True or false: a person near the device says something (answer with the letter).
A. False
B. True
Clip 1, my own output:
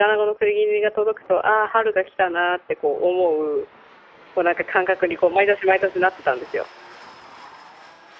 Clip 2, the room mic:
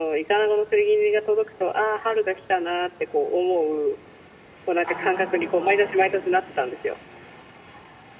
B